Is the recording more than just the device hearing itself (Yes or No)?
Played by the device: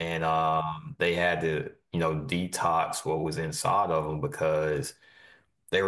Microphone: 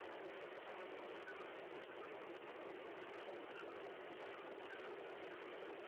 No